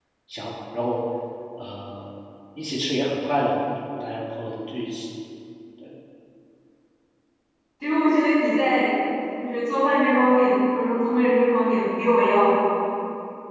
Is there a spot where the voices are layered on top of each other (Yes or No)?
No